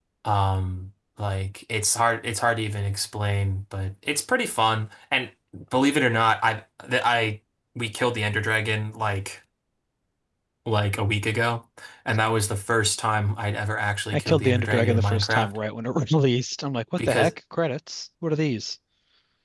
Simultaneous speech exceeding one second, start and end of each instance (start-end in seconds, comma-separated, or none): 14.1-15.6